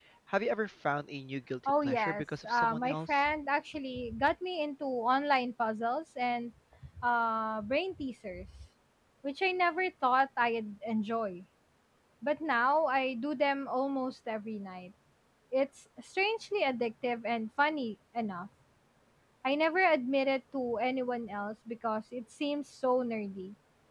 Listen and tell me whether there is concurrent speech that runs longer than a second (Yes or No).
Yes